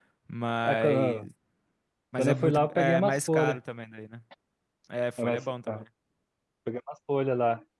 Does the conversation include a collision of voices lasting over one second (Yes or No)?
Yes